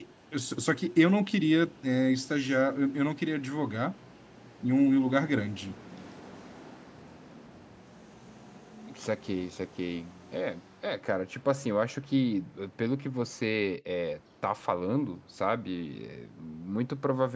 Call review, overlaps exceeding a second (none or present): none